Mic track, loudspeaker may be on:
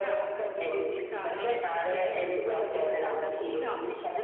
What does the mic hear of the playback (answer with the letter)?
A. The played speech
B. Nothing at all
A